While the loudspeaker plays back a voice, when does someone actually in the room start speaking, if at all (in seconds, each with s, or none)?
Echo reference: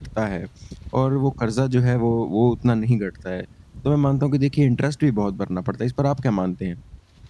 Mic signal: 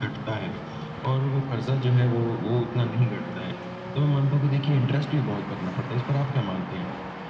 none